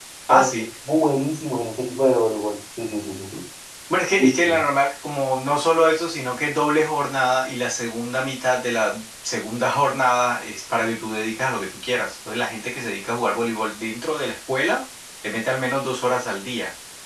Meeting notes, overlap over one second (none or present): none